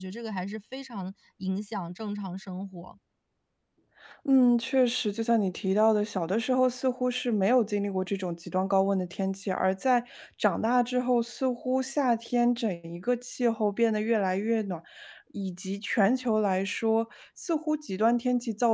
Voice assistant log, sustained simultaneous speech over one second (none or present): none